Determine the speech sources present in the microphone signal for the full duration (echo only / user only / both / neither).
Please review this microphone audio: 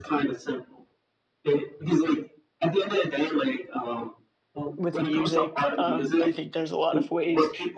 both